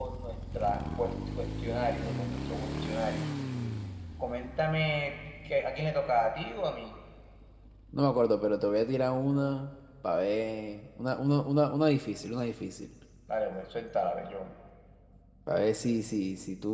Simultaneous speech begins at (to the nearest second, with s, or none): none